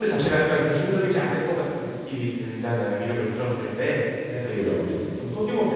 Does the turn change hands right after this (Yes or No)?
No